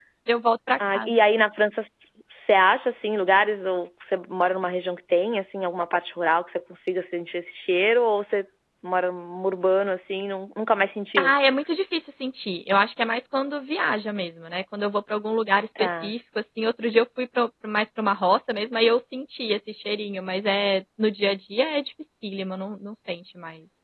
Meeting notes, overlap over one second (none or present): none